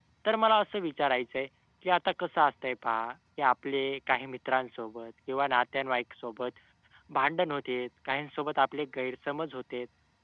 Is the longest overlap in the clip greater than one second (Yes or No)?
No